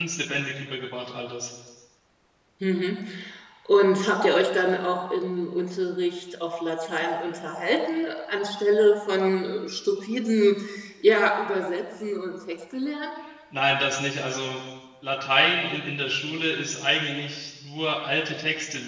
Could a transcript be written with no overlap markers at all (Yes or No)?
Yes